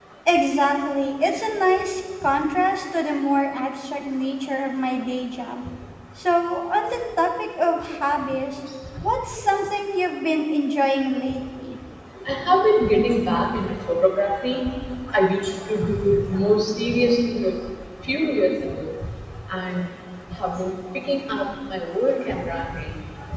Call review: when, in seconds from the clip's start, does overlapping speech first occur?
none

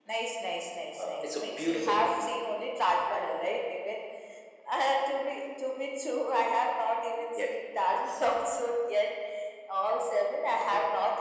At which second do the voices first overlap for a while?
1.0 s

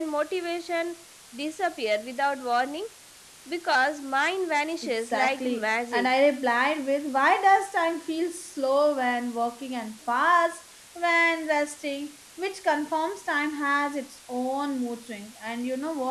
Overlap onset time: 4.8 s

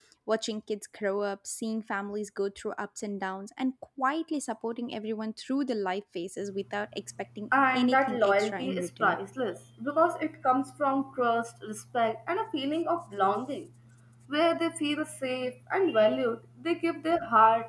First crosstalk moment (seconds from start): 7.5 s

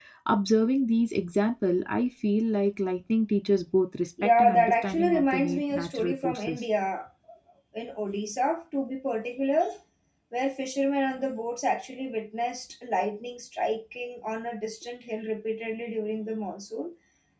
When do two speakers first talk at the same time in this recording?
4.2 s

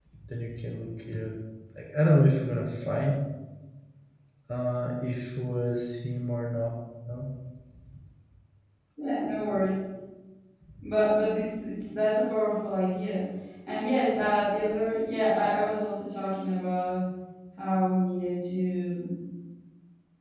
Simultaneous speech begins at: none

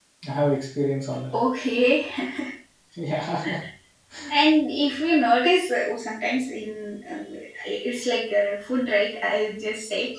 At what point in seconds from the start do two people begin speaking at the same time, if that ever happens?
none

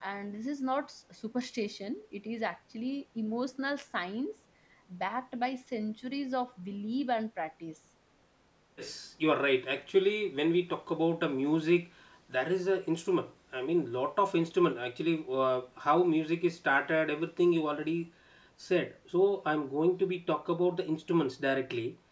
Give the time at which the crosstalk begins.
none

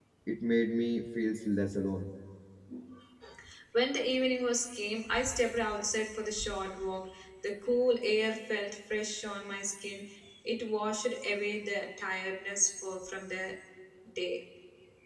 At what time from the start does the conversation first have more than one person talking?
none

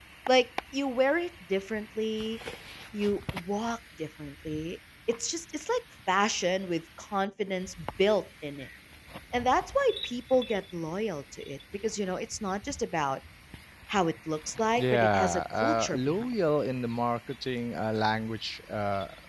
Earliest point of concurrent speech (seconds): 14.7 s

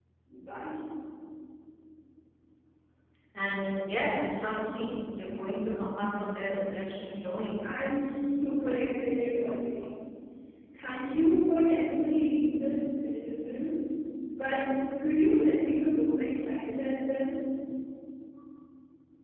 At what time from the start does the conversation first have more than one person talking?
none

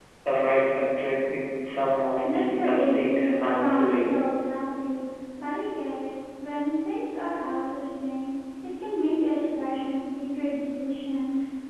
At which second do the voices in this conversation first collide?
2.2 s

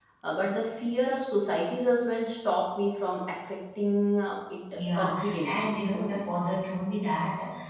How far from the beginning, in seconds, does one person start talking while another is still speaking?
4.8 s

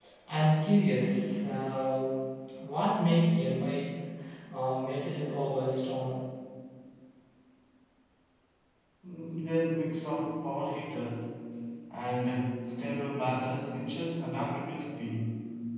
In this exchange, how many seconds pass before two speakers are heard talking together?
none

